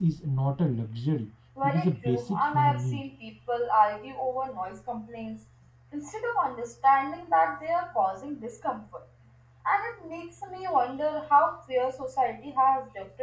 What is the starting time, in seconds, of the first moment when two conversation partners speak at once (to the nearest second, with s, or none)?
2 s